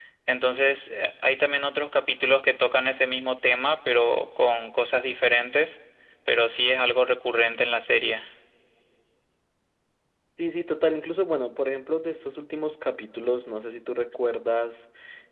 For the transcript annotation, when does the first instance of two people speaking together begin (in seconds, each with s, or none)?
none